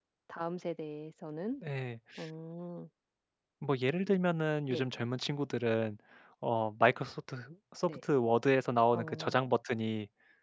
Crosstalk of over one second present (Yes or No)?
No